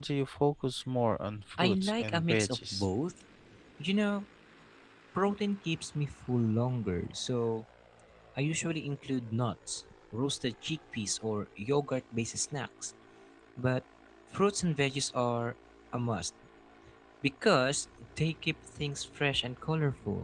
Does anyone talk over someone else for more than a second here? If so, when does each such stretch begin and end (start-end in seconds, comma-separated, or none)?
1.6-2.8